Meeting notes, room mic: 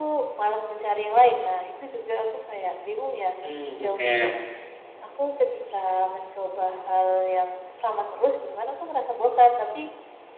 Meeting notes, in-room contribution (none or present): present